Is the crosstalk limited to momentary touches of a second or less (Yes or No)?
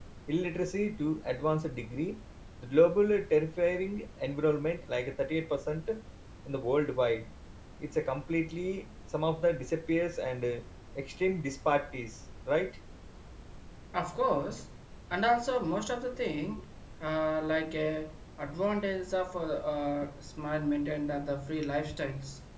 Yes